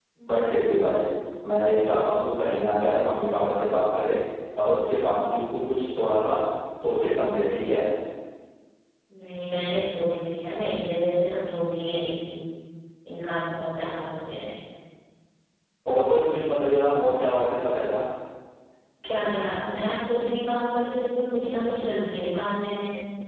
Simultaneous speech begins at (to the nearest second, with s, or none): none